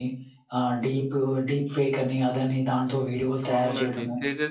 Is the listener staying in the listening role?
No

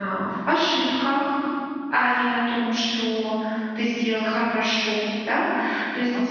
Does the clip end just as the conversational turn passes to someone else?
No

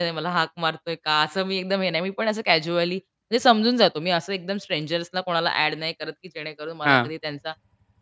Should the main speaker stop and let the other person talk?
No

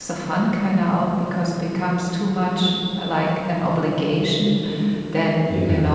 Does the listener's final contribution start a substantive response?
No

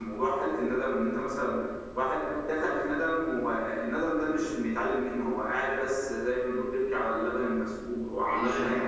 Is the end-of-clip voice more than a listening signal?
No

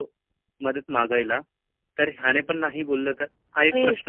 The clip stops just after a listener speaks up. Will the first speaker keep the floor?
No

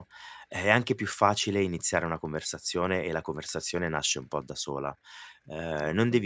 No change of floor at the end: Yes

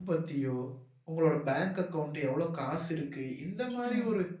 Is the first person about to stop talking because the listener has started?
No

